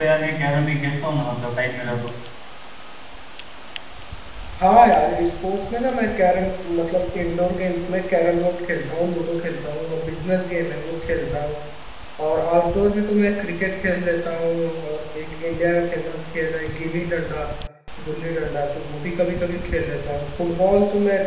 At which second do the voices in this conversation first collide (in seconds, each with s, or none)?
none